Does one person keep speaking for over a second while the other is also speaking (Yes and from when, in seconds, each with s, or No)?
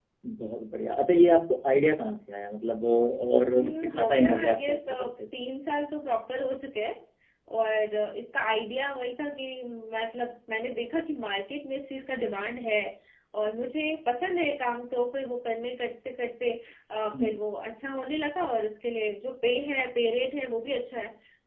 Yes, from 3.6 s